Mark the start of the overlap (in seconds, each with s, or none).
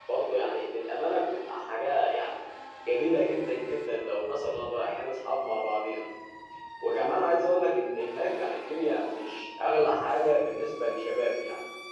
none